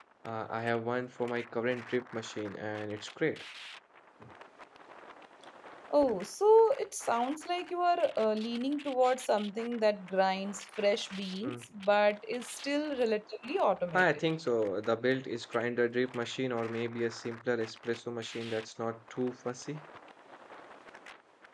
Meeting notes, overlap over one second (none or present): none